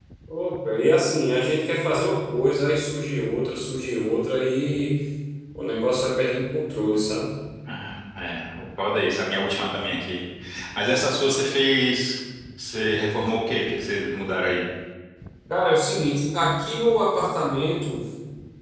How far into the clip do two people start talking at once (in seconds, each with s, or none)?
none